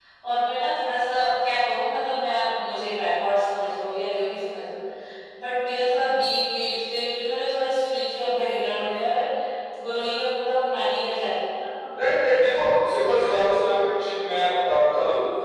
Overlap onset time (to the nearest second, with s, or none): none